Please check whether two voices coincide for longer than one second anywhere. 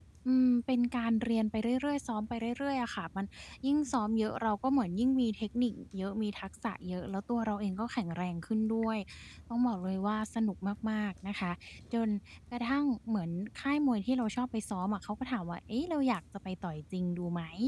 No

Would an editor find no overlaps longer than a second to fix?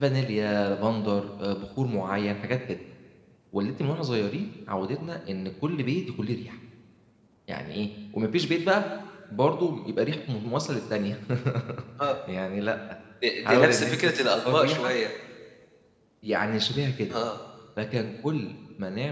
No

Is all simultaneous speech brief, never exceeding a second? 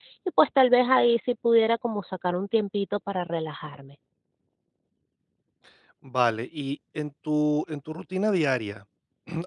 Yes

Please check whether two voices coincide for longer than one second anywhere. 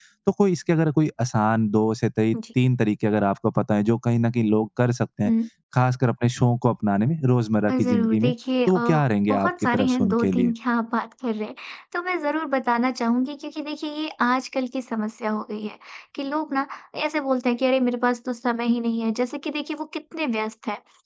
Yes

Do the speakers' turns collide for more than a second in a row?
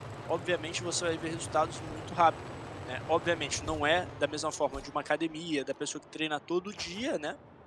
No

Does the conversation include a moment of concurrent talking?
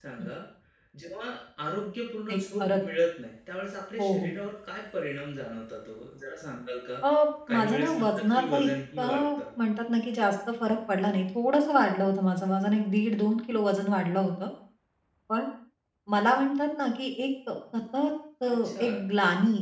Yes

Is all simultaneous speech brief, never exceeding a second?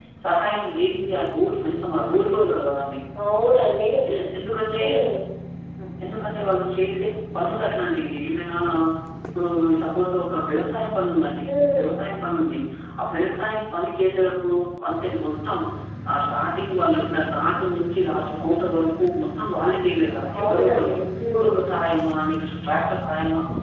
Yes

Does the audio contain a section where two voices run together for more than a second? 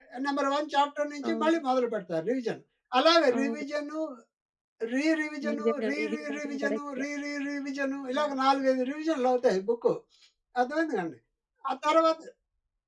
Yes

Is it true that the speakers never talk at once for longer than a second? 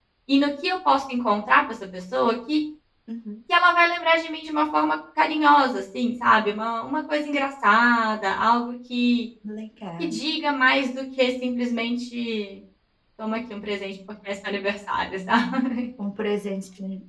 Yes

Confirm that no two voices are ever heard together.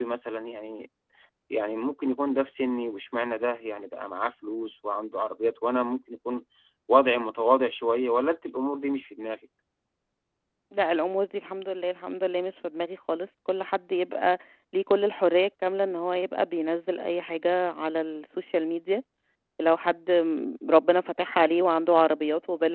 Yes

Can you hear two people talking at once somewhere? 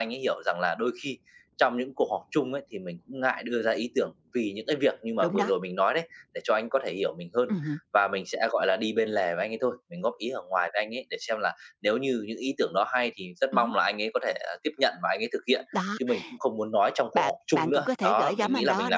Yes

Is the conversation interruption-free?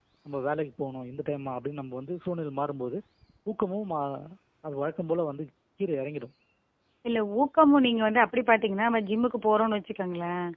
Yes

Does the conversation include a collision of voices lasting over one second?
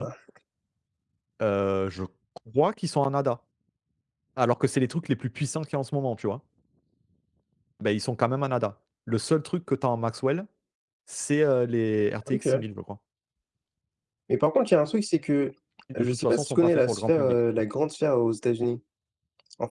Yes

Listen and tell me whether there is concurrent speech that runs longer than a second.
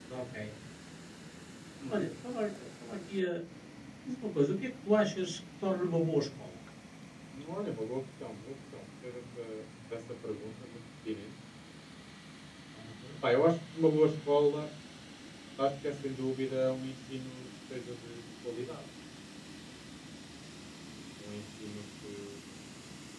No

